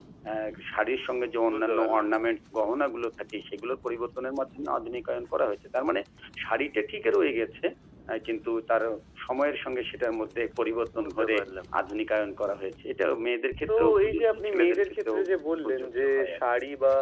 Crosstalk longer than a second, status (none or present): present